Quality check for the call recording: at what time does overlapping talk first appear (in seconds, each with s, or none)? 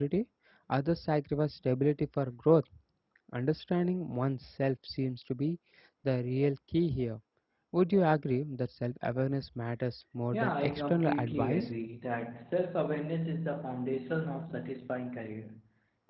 10.3 s